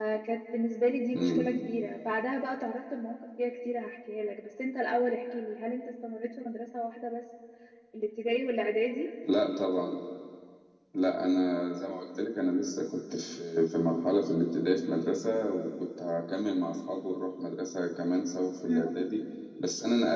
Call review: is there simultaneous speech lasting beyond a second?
No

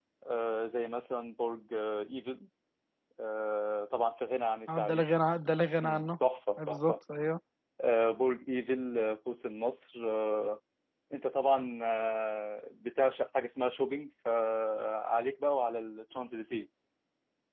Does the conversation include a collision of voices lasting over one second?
No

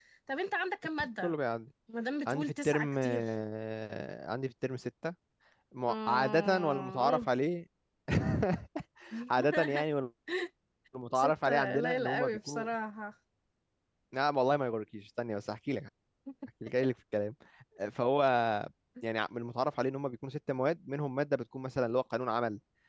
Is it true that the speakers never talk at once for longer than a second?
No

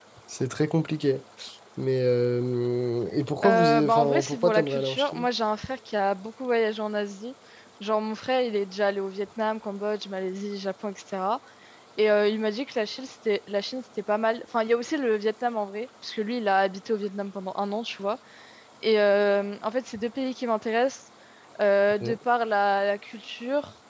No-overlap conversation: No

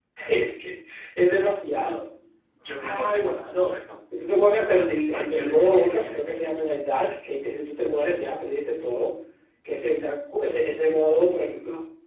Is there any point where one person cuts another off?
Yes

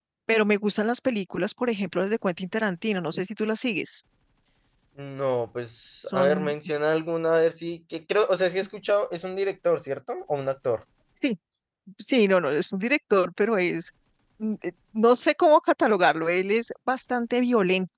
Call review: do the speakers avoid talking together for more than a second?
Yes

